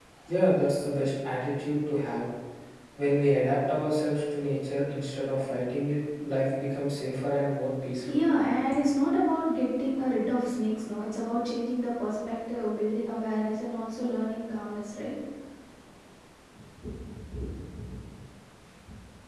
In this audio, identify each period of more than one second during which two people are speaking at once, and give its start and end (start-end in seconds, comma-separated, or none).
none